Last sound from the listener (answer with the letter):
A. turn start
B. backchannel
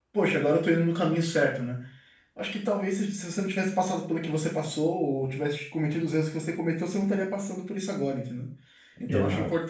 B